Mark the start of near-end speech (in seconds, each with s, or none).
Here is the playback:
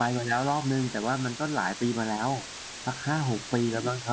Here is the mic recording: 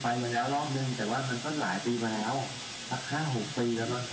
none